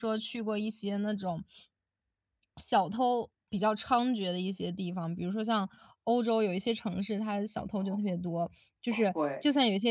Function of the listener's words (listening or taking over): listening